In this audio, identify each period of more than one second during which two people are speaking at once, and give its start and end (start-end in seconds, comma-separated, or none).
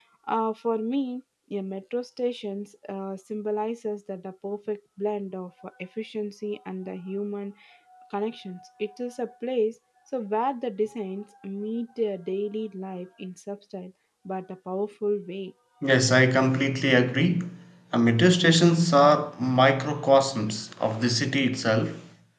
none